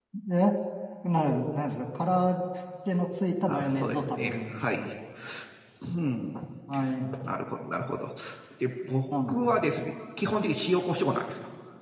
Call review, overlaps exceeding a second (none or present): present